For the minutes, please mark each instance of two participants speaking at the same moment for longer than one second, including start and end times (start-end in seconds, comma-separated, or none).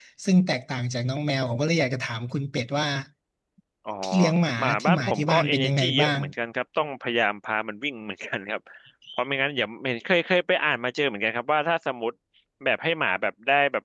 4.6-6.2